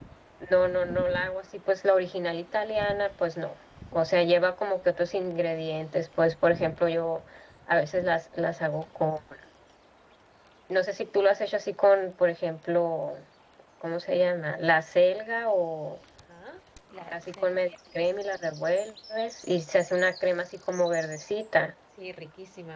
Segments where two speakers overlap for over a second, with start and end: none

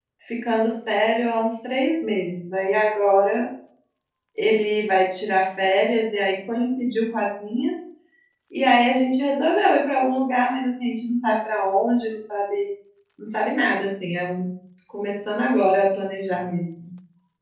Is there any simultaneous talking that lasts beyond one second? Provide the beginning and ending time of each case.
none

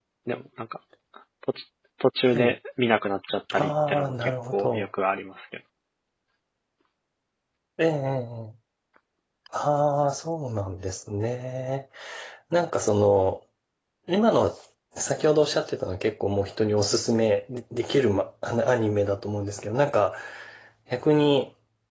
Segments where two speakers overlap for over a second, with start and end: 3.6-4.9

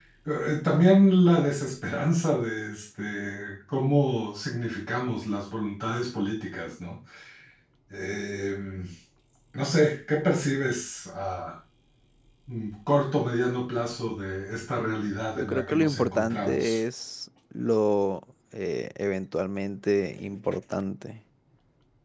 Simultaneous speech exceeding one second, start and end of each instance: 15.4-16.8

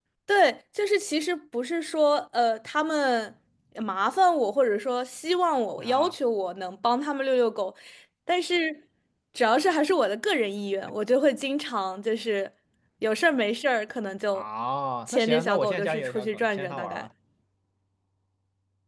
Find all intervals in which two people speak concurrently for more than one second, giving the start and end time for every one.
15.1-17.1

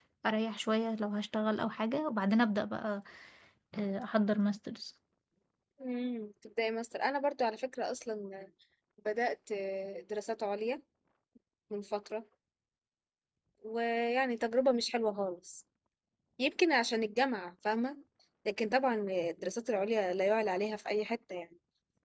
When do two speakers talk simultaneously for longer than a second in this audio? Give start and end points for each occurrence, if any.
none

